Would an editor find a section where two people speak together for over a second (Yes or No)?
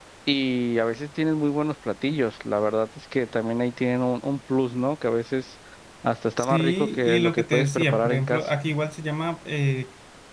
Yes